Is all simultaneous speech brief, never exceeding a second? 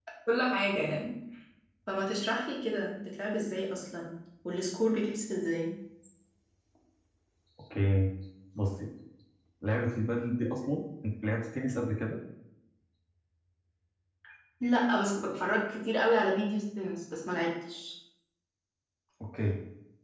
Yes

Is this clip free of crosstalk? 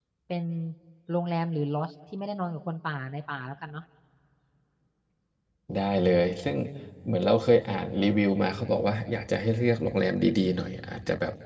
Yes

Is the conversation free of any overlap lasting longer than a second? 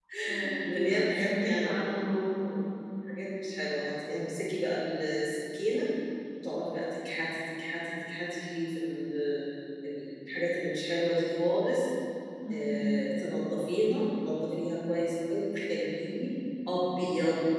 No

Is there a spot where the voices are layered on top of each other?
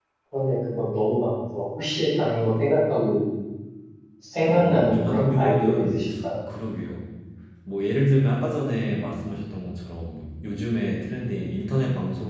Yes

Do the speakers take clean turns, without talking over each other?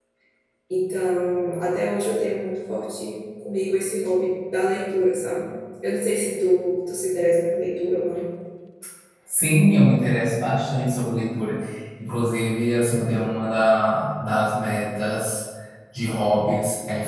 Yes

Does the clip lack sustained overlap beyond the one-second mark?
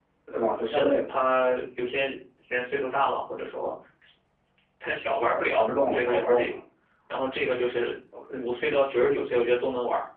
No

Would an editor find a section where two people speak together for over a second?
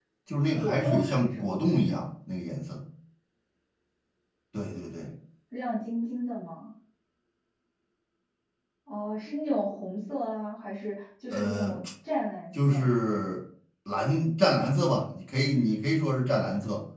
Yes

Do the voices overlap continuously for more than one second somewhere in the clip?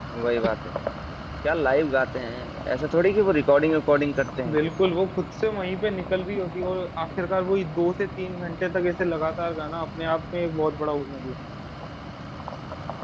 No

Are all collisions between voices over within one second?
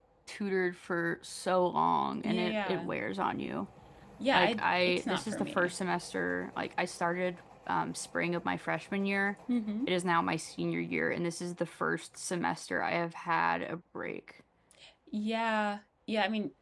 No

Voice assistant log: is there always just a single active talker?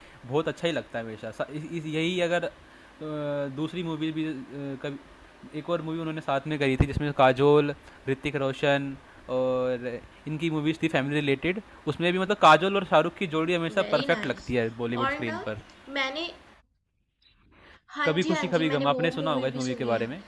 No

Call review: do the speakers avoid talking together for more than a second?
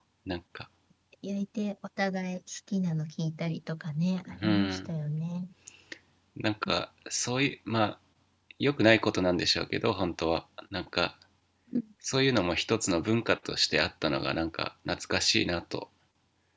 Yes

